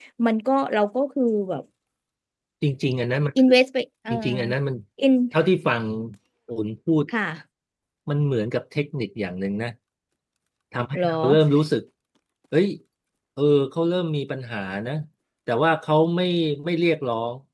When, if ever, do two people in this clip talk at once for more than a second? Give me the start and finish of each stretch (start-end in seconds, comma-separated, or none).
none